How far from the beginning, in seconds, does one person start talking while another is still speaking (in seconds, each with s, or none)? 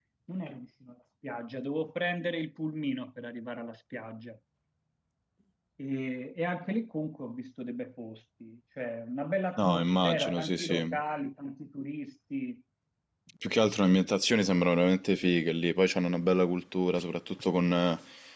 9.6 s